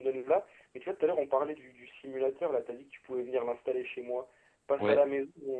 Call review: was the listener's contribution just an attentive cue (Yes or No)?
Yes